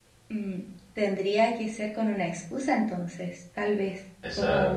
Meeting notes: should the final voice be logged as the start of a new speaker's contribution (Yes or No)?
Yes